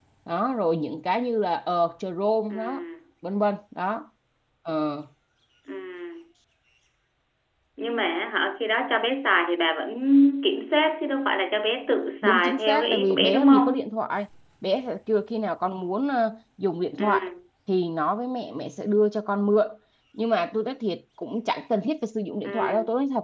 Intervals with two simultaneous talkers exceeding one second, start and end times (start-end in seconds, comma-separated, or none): 12.2-13.9